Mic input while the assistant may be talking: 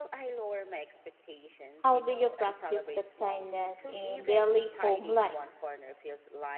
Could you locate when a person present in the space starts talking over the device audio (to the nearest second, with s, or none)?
2 s